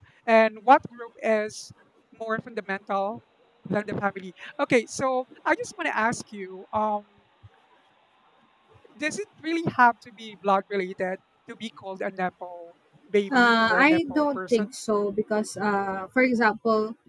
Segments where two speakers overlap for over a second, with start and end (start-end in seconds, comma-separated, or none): 13.3-14.7